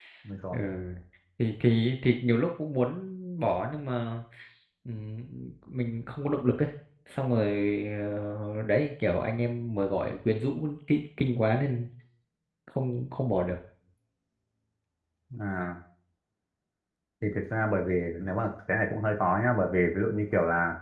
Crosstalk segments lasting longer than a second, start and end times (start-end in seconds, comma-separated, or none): none